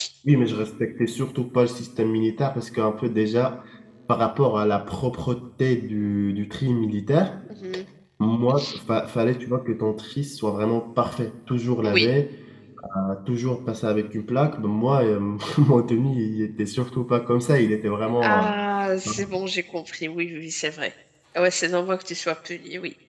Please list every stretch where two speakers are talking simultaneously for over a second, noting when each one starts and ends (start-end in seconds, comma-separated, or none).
none